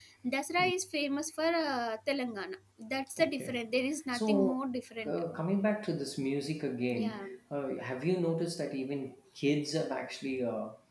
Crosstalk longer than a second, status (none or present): none